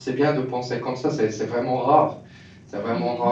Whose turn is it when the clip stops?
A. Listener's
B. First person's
B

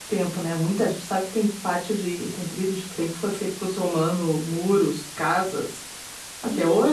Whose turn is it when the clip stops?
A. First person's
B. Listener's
B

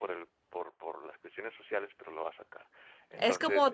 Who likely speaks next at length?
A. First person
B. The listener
B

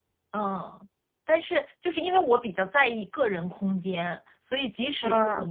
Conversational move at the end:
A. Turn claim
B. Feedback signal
B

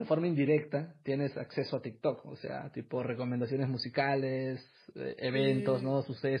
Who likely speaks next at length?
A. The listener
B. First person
B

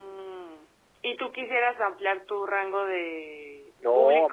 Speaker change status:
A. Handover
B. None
A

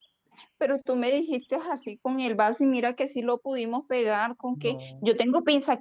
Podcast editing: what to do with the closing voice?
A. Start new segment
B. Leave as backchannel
B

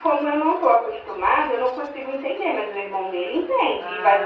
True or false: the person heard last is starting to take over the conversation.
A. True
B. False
A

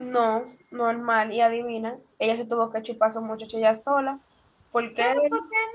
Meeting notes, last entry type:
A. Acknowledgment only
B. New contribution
B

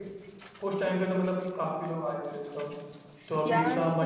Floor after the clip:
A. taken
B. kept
A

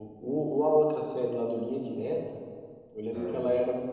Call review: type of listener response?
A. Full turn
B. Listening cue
B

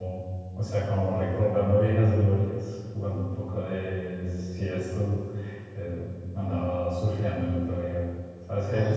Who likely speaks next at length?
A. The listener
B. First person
B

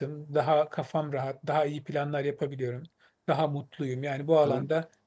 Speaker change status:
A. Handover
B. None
B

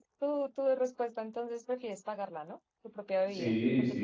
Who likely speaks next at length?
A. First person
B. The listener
B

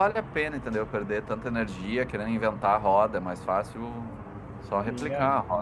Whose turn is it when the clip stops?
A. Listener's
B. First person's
A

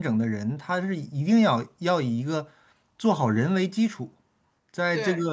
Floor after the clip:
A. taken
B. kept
B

